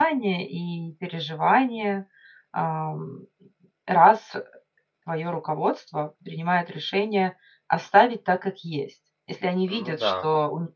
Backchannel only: Yes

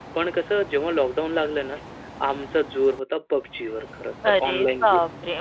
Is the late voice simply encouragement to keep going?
No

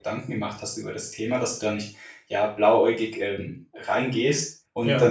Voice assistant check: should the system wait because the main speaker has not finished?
Yes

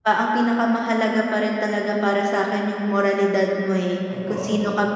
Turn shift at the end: No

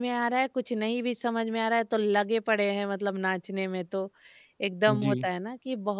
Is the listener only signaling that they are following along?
Yes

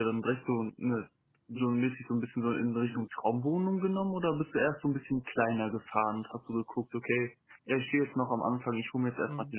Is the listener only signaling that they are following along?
Yes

